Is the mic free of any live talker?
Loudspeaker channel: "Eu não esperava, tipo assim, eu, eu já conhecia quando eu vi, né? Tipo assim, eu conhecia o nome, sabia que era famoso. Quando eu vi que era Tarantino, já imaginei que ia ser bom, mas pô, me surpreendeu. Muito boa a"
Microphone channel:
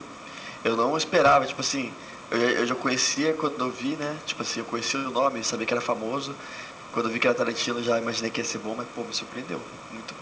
Yes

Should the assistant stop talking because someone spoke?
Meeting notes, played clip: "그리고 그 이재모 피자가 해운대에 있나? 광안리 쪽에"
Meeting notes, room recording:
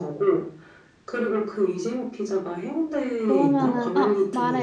Yes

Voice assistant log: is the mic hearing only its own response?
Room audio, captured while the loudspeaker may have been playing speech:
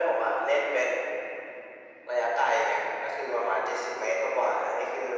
Yes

